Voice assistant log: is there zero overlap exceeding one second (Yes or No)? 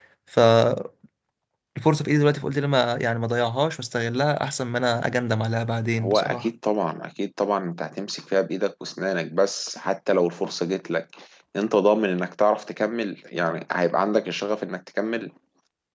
Yes